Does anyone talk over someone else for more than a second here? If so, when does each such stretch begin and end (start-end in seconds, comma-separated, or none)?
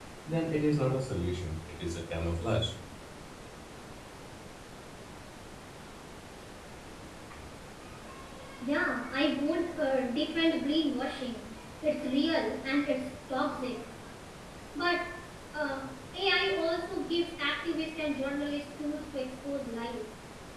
none